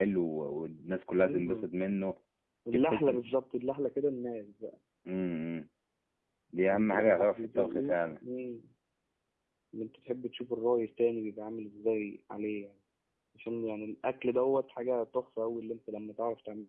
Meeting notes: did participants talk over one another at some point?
Yes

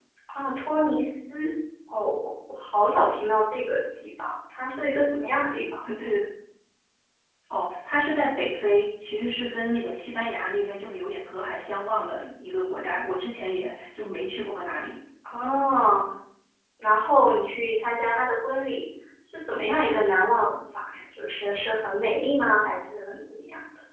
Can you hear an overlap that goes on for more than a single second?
No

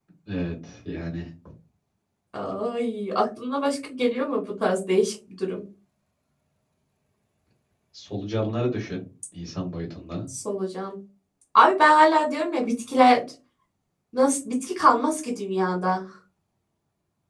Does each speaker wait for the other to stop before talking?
Yes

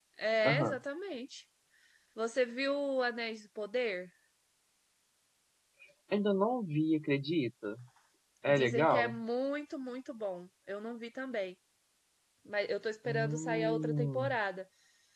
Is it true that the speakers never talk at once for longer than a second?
No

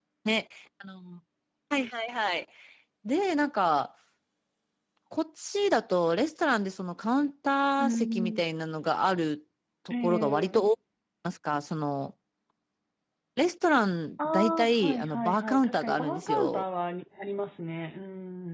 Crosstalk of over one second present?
Yes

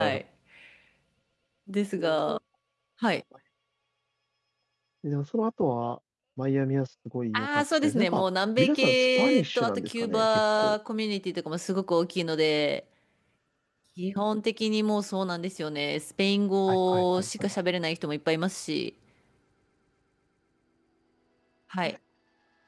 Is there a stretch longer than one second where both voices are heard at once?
Yes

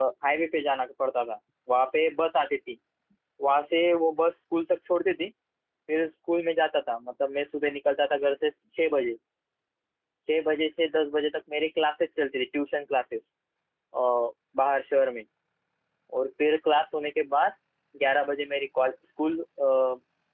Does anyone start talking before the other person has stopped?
No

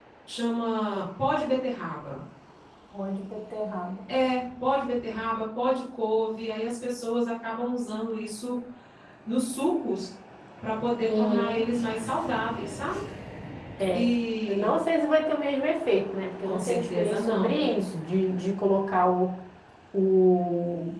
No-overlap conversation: No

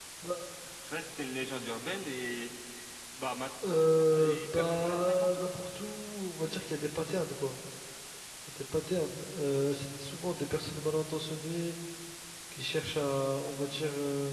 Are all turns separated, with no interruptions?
No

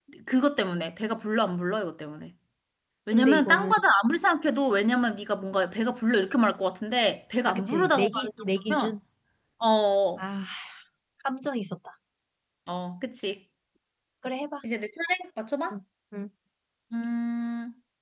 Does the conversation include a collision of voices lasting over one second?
Yes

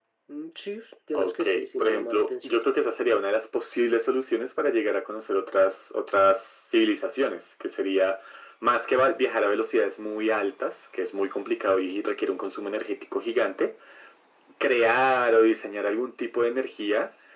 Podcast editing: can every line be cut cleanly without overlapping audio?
No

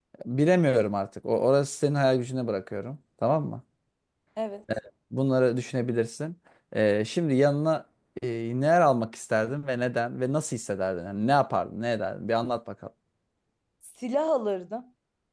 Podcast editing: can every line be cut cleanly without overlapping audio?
Yes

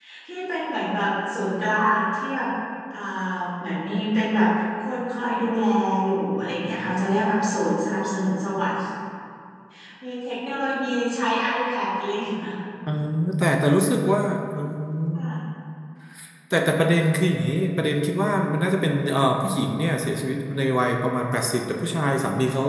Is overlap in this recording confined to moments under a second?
Yes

